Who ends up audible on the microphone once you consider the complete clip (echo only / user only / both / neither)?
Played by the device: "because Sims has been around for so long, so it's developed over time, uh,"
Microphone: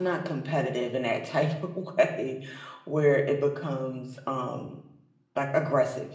user only